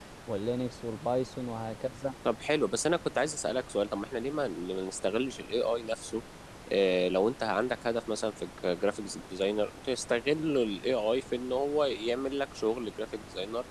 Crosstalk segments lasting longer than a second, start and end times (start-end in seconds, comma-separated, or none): none